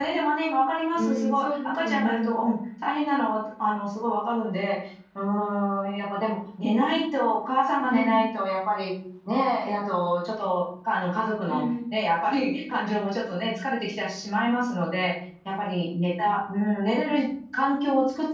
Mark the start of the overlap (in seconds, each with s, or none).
0.9 s